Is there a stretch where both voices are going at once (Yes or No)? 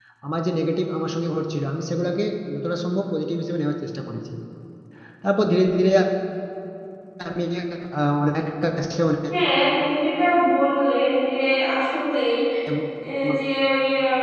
No